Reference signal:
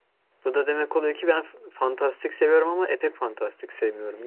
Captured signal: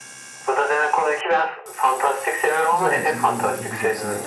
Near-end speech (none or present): present